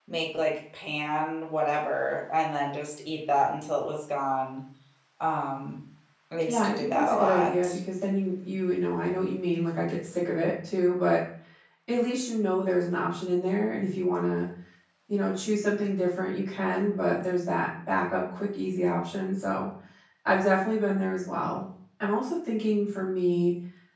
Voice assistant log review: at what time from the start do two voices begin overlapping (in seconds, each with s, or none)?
6.5 s